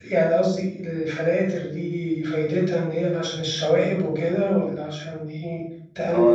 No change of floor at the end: No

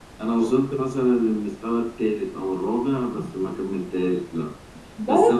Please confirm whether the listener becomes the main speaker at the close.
No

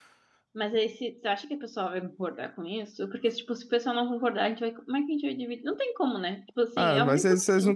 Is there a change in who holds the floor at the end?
Yes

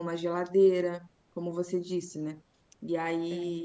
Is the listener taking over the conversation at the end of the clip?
No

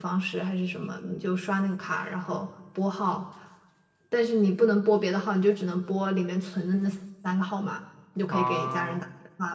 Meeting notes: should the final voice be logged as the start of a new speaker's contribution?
No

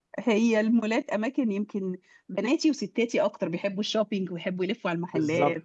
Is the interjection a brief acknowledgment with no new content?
No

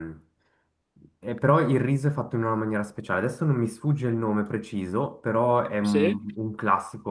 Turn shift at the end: No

